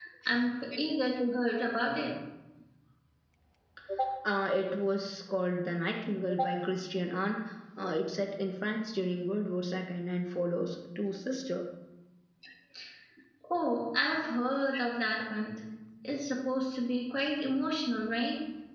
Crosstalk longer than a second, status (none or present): none